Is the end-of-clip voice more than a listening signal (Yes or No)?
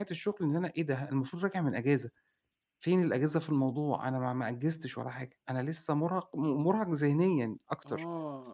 Yes